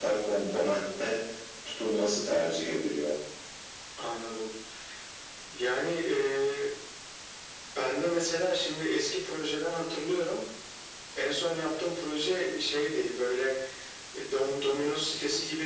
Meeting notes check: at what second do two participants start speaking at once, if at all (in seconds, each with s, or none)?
none